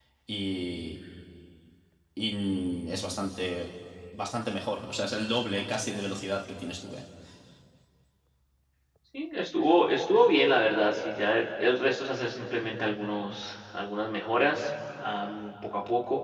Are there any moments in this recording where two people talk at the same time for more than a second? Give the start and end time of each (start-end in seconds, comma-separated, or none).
none